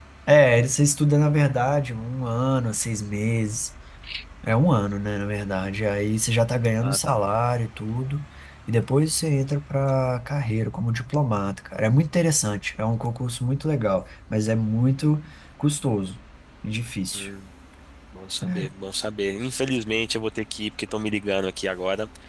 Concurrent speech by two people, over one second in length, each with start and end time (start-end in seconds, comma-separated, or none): none